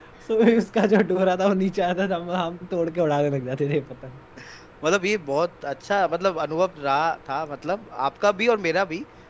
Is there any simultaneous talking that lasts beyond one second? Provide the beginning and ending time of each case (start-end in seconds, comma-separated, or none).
none